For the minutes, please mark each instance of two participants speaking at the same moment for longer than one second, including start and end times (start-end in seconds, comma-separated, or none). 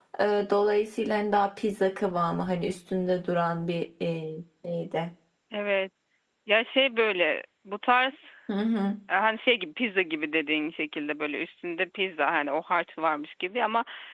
none